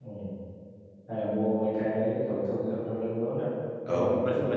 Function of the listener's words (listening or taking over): taking over